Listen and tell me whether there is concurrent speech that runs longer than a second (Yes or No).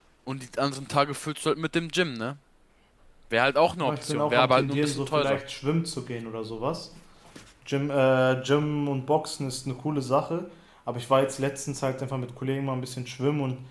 Yes